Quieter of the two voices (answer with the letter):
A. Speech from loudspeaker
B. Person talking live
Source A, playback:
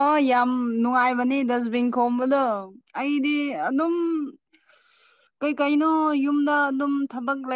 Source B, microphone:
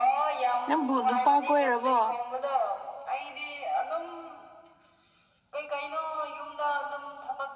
A